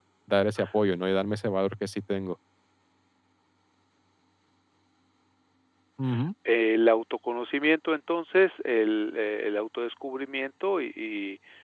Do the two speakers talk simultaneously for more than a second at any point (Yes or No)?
No